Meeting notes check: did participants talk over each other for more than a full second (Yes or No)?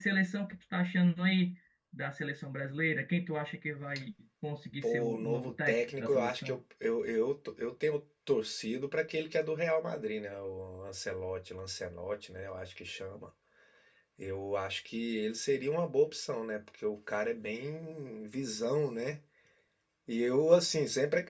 Yes